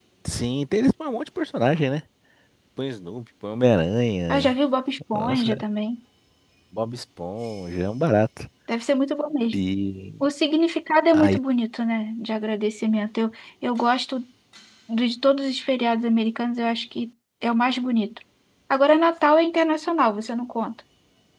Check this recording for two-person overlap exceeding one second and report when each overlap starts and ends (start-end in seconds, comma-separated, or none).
none